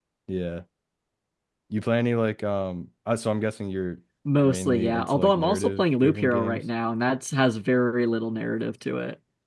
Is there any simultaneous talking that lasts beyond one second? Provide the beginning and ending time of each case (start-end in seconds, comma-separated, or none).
4.4-6.6